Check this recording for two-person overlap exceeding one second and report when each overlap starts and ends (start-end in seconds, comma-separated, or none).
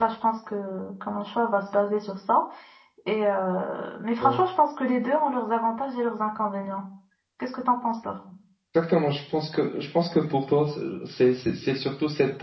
none